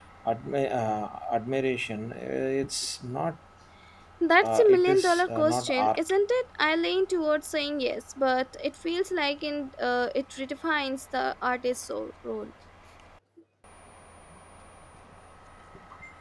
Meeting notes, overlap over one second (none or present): present